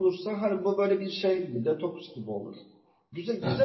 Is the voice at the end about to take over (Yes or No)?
No